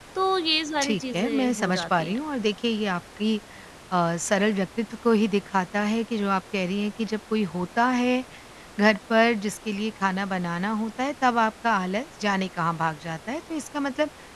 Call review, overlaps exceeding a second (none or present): present